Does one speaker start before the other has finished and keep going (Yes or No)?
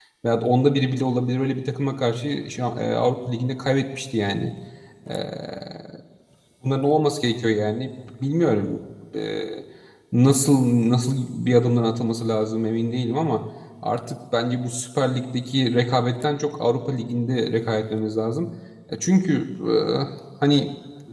No